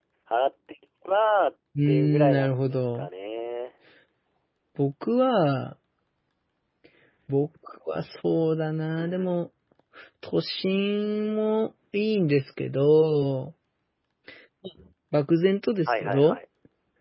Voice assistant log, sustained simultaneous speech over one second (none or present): present